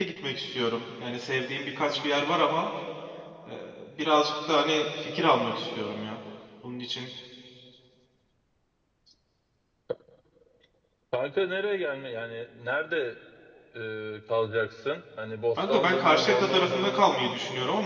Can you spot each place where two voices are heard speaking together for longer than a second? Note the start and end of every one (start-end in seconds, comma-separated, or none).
15.6-17.0